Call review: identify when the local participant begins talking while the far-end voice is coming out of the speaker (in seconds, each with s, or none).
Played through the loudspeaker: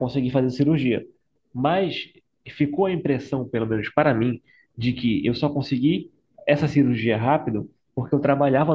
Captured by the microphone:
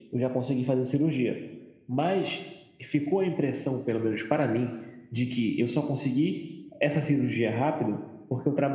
none